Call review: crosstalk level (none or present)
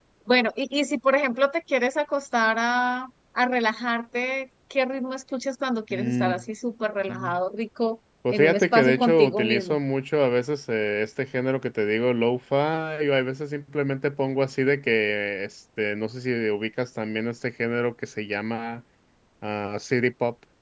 present